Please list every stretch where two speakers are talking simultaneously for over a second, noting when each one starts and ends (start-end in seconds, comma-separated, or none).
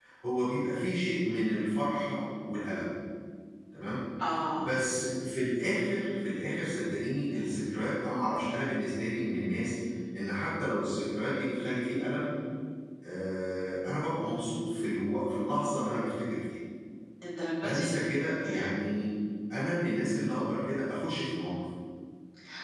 none